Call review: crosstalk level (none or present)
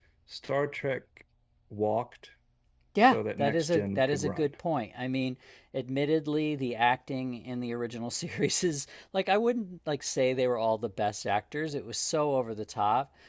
present